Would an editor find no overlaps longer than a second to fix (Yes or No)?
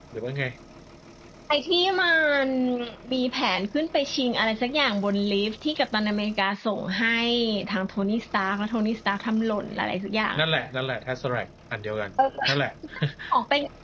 Yes